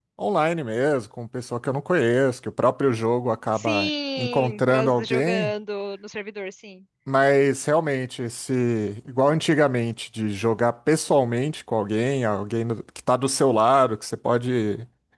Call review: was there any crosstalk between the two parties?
Yes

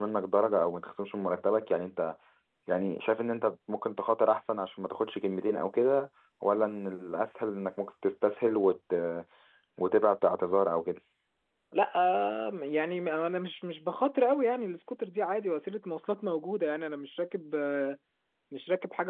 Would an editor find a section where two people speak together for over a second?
No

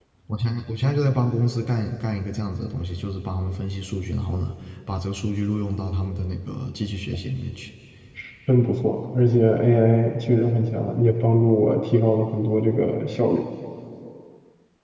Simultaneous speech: No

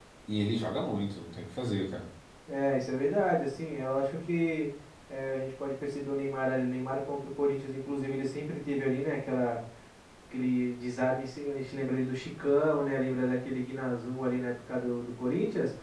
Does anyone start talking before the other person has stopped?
No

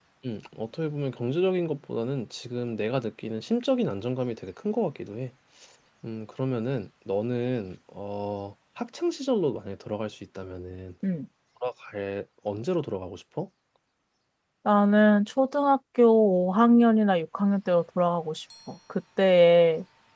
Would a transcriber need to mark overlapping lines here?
No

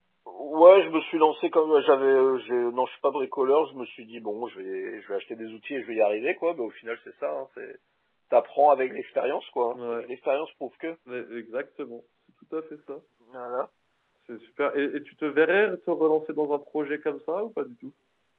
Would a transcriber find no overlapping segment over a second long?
Yes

